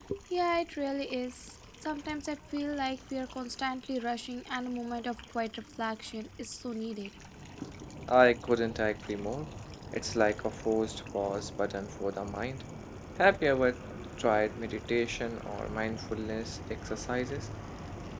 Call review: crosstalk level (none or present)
none